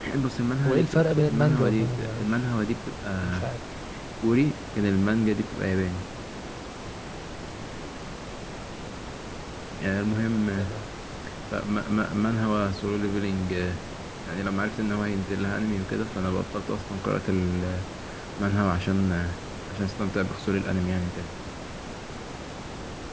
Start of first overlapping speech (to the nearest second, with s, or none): 1 s